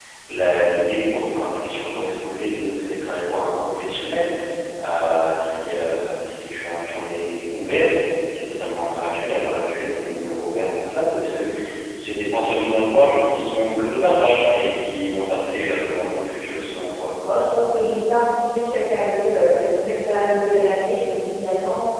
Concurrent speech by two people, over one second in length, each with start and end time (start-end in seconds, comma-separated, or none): none